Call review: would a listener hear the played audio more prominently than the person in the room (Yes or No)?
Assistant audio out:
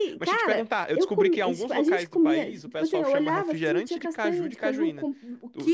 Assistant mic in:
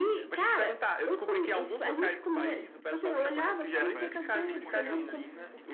Yes